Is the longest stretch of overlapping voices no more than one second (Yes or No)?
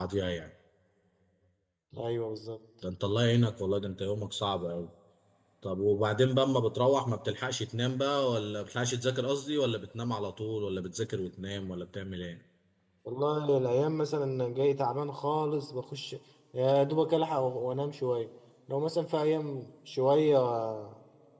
Yes